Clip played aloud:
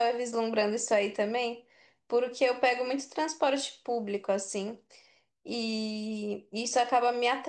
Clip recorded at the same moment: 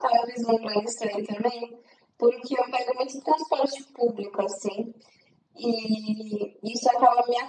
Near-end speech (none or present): none